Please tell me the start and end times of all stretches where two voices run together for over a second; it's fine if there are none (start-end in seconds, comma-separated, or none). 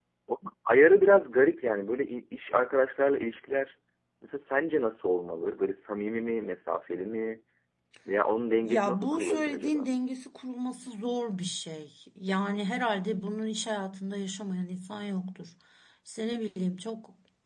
8.6-9.9